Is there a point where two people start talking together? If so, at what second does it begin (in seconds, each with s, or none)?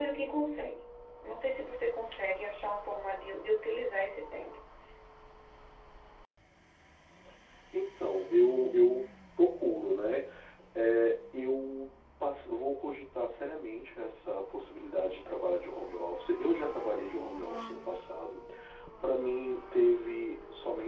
none